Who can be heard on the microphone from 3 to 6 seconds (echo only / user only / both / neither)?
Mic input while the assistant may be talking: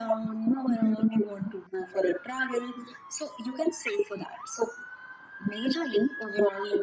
echo only